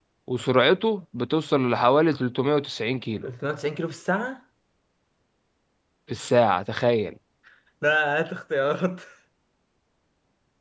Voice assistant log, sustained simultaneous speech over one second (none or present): none